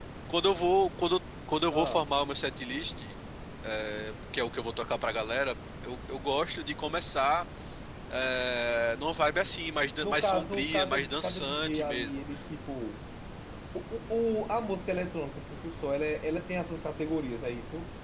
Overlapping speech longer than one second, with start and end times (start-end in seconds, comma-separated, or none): 10.0-12.1